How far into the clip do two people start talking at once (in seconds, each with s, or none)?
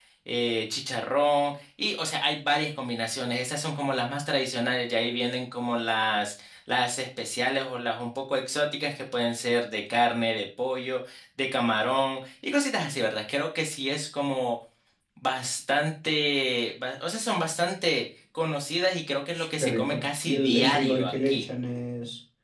19.3 s